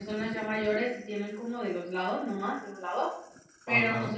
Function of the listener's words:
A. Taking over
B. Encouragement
B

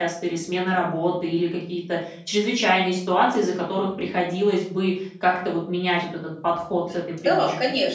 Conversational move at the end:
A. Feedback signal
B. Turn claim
B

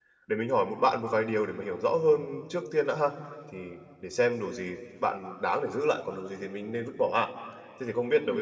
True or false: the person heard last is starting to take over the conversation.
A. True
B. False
B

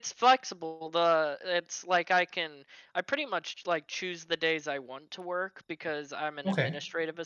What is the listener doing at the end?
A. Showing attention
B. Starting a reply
A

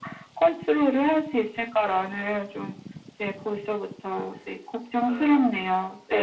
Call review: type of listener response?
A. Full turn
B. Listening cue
A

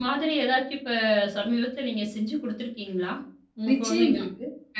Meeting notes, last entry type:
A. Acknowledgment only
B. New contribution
B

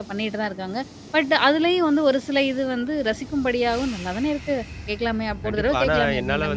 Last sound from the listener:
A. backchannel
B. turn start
B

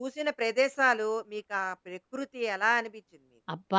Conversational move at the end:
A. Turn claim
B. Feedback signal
A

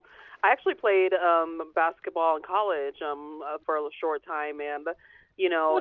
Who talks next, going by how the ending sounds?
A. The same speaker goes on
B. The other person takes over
A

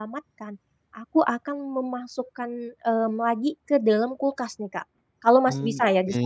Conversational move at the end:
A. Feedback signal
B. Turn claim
A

